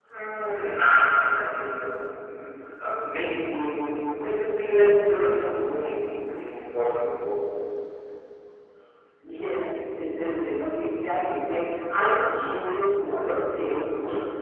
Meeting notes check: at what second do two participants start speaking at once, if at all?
none

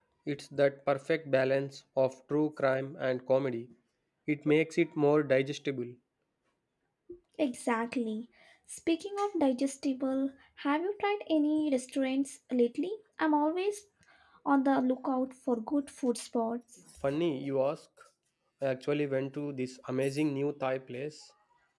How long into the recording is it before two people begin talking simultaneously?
none

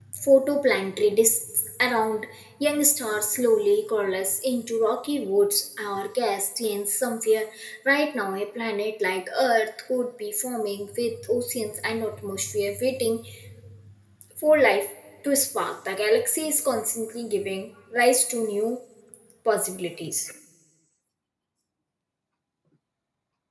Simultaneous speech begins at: none

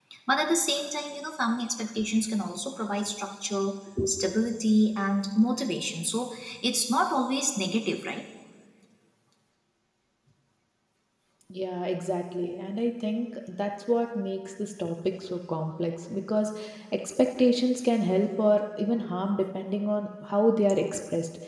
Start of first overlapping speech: none

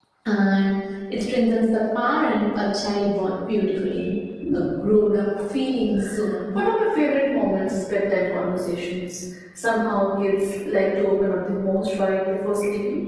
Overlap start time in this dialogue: none

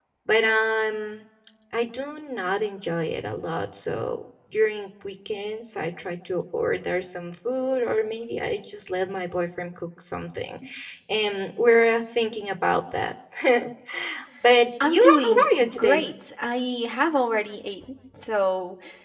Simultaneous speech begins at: 14.8 s

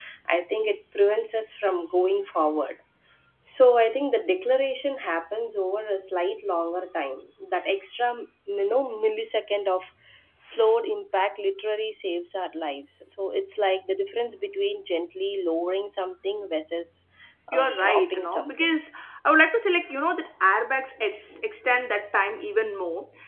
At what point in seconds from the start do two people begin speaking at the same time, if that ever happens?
17.5 s

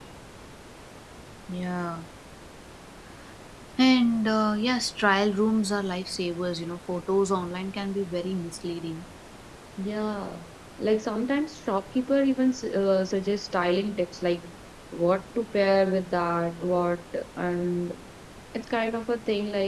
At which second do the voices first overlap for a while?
none

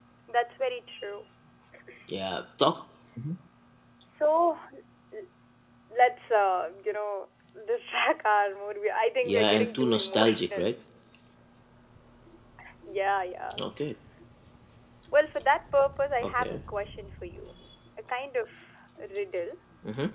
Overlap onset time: 9.2 s

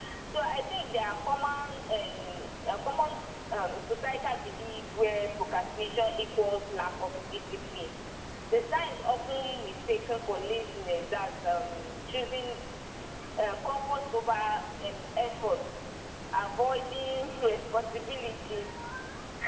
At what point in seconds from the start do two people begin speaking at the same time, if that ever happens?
none

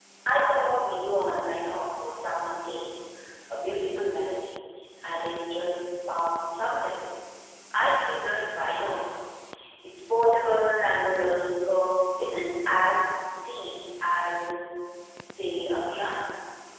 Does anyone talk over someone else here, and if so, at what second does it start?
none

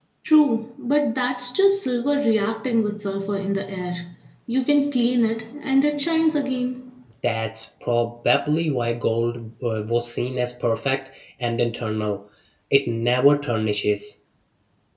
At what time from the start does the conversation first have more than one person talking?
none

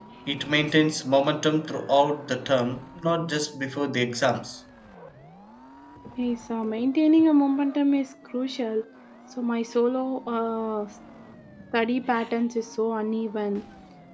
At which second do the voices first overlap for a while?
none

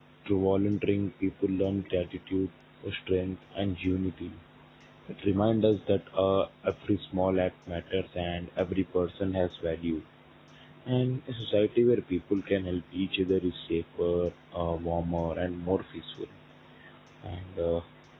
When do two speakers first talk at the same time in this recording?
none

